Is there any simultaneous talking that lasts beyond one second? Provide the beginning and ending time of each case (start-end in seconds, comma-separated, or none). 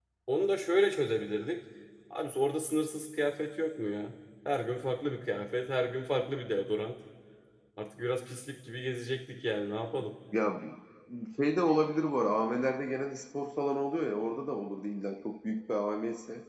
none